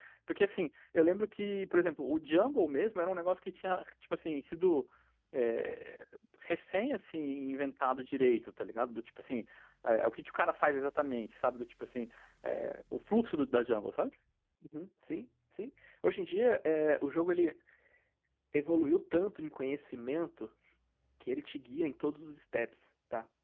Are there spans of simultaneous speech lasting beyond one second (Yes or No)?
No